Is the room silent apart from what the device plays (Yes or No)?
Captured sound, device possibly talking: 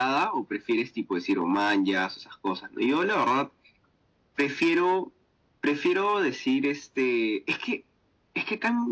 Yes